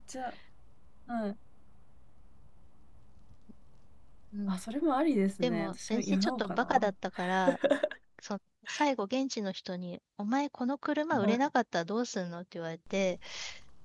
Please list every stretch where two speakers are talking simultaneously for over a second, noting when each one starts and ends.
5.4-6.9

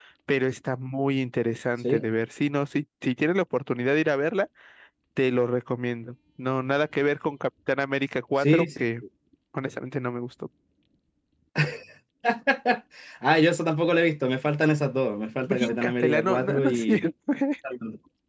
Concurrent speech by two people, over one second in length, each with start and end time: 15.5-16.9

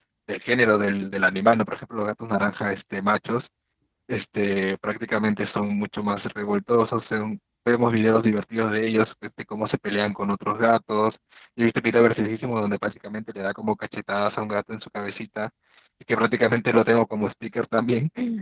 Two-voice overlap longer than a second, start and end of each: none

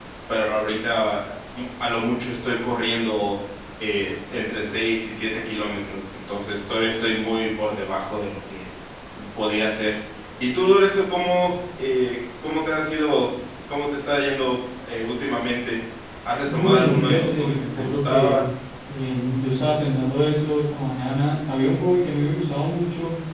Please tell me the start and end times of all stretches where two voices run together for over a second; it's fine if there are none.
16.5-18.4

